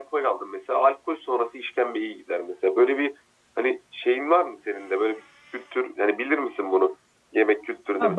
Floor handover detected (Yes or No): Yes